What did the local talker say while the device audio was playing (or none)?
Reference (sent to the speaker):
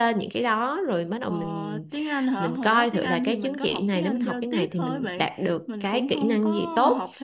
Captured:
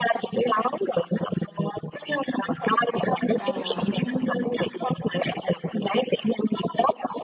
Ờ đúng rồi.